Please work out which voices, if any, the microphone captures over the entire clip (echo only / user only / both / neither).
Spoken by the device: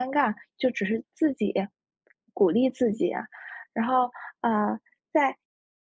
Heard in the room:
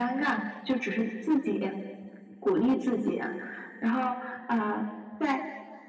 echo only